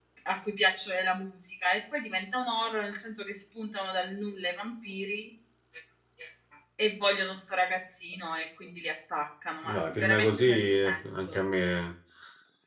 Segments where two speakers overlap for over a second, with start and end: 9.7-11.4

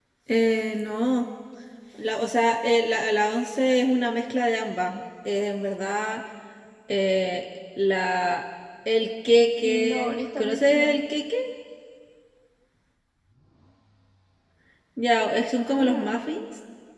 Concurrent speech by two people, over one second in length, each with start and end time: 9.6-11.0

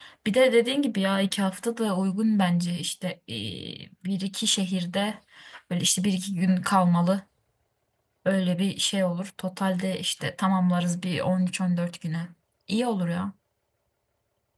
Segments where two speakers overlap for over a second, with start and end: none

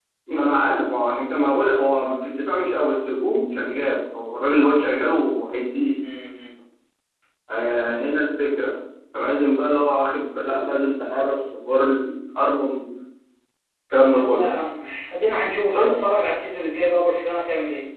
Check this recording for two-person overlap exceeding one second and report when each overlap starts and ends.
none

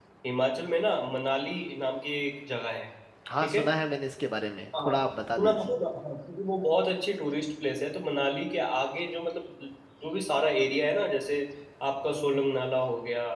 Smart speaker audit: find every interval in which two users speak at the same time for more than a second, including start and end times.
none

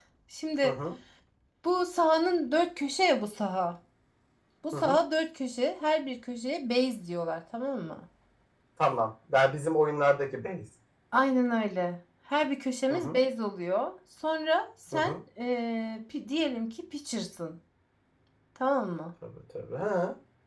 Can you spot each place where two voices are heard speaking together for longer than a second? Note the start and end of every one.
none

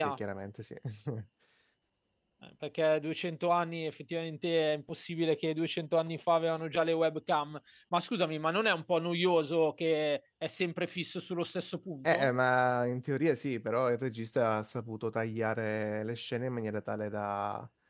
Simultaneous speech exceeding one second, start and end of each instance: none

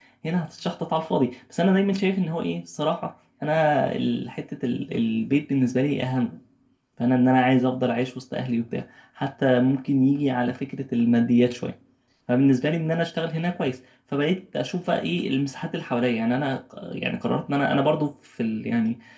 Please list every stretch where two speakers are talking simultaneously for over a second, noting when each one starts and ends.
none

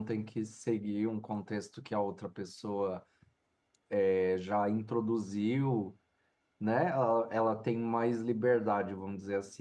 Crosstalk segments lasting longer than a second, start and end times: none

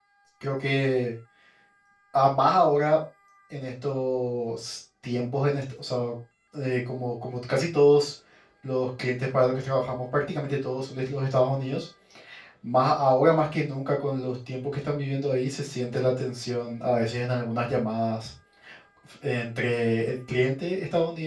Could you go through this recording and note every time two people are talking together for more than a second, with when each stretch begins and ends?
none

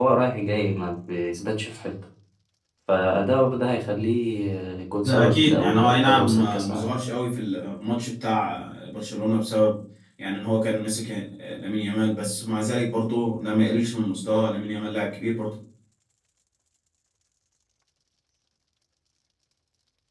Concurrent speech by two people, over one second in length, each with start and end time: 5.0-6.9

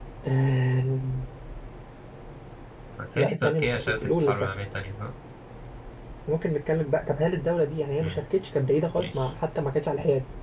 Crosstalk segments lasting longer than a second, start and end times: 3.1-4.5

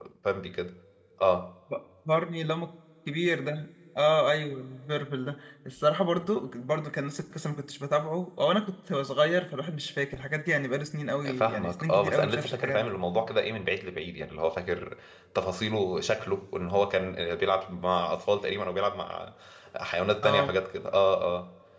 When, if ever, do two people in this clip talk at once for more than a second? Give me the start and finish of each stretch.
11.3-12.9

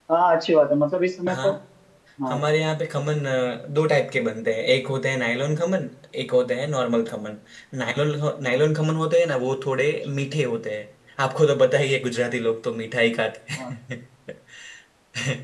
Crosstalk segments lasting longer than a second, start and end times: none

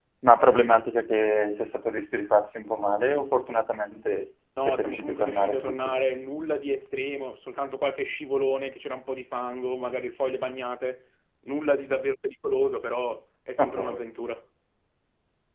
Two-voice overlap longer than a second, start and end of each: 4.6-6.0

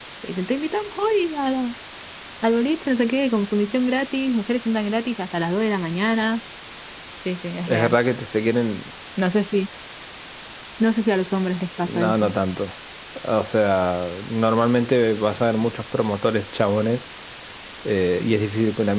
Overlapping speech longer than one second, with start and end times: none

